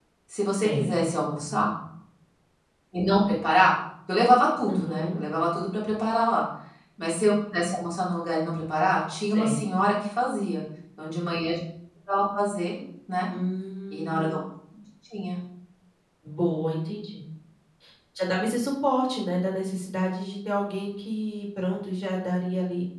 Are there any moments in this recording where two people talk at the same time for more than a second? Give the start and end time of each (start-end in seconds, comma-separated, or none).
none